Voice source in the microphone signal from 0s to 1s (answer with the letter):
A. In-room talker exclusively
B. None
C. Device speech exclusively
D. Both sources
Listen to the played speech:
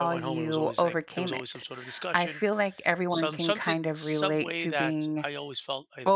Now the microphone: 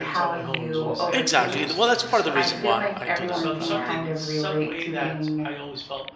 C